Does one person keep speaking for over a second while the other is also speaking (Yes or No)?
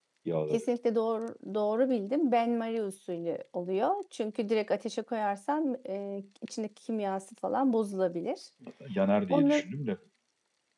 No